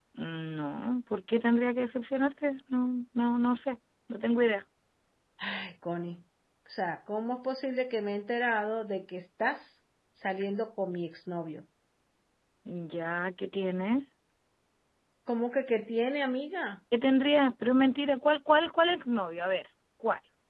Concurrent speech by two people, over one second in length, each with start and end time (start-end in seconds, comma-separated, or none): none